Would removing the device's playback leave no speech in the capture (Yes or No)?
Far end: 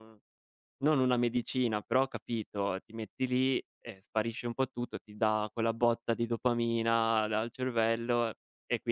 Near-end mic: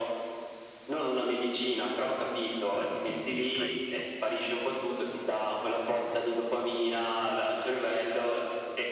No